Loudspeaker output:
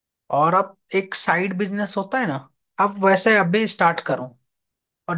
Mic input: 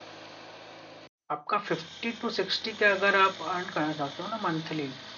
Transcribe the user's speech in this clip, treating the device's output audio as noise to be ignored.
आपका फिफ्टी टू सिक्सटी के अगर आप अर्न करना चाहते हो ना मंथली

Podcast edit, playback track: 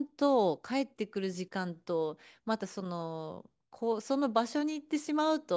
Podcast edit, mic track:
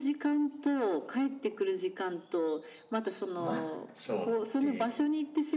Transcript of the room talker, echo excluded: う、マッチョって

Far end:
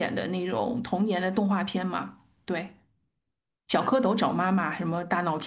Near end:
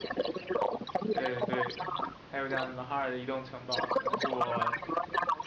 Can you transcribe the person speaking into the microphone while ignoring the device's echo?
对的，对的，还有像什么《哈尔的移动城堡》，可能是我

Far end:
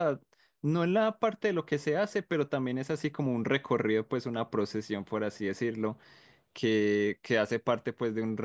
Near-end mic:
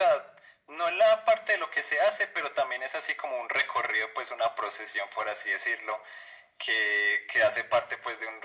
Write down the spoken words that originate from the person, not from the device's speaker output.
none

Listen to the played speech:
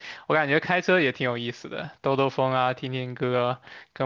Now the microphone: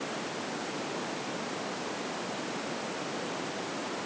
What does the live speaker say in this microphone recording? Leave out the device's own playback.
none

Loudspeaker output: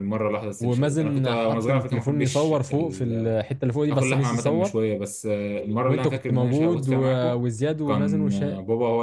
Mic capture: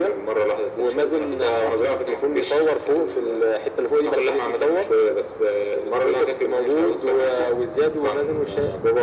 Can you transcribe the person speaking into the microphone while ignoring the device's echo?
none

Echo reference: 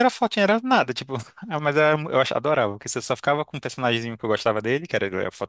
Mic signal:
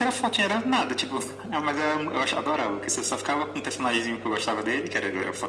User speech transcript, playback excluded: none

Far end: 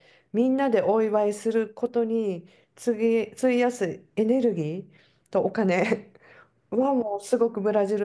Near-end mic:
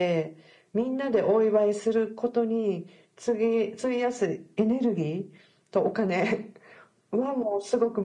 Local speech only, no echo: none

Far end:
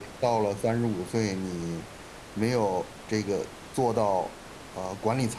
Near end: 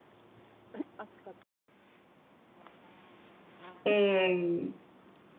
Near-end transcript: 嗯

